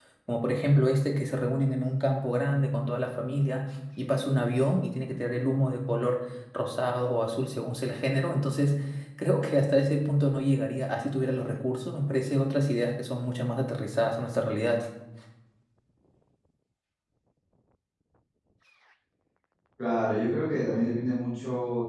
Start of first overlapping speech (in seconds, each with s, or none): none